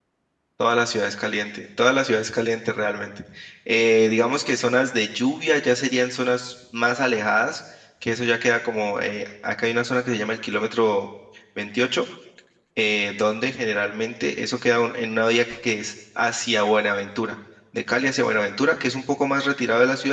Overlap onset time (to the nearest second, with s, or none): none